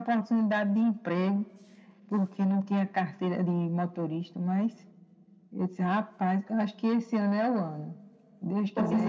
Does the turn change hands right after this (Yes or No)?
Yes